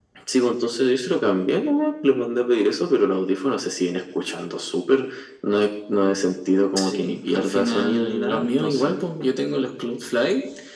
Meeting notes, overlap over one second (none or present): present